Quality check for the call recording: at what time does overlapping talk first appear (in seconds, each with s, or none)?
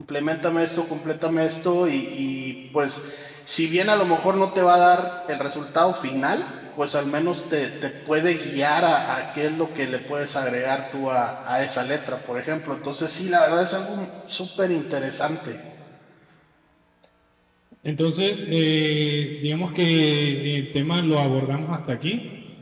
none